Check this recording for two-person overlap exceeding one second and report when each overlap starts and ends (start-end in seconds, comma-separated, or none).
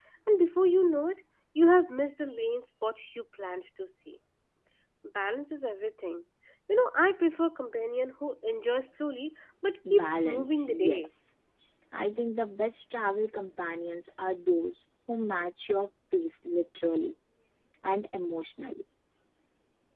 9.9-11.1